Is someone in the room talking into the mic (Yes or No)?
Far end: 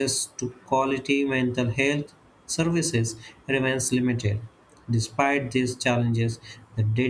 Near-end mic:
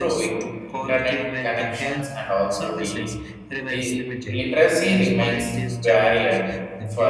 Yes